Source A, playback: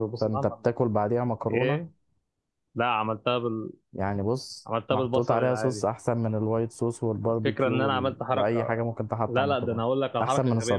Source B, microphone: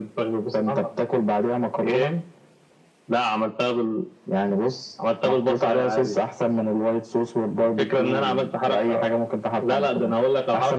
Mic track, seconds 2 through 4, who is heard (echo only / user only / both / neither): echo only